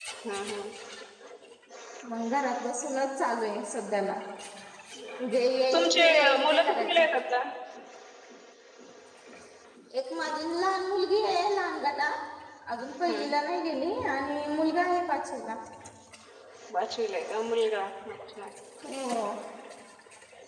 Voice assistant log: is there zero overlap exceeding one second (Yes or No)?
No